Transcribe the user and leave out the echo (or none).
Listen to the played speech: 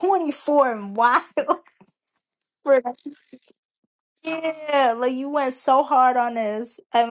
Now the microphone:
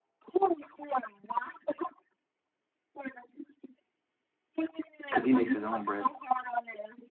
because he makes his own bread.